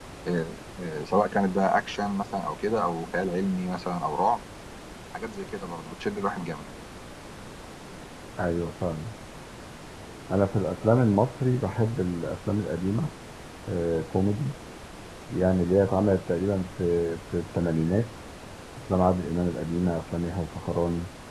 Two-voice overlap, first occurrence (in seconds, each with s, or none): none